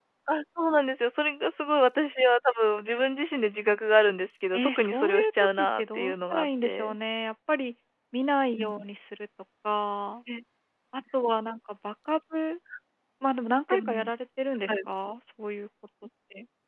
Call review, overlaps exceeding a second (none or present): present